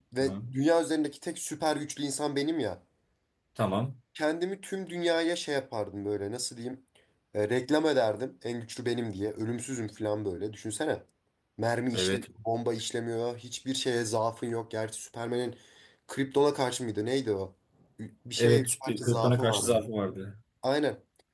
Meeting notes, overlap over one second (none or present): present